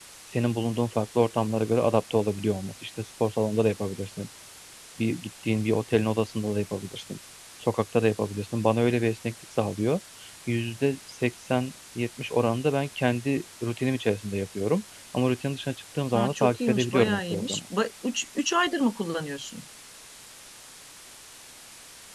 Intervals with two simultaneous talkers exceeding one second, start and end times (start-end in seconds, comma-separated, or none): 16.1-17.6